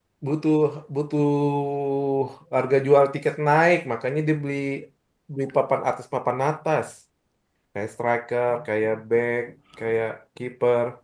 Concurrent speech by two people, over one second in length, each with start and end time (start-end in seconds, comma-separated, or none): none